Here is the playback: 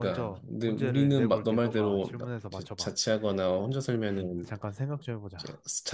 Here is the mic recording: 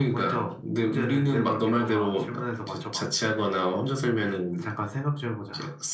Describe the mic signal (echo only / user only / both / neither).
echo only